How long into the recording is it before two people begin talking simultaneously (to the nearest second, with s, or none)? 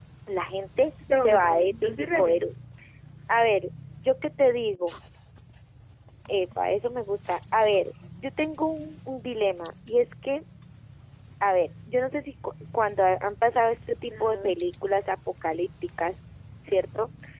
1 s